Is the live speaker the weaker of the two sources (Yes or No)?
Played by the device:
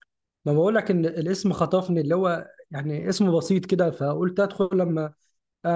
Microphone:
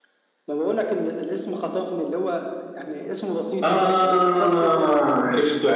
No